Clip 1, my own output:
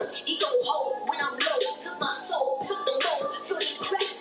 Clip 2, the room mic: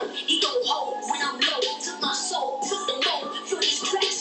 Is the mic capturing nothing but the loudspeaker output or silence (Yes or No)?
Yes